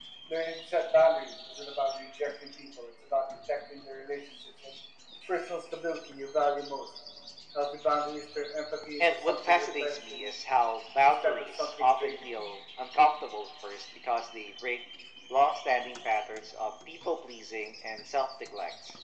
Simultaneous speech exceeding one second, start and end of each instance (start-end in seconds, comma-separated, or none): 9.0-10.3, 11.0-12.3